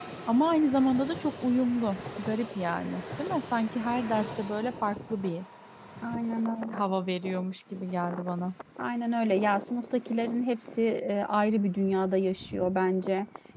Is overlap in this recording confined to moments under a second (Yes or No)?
Yes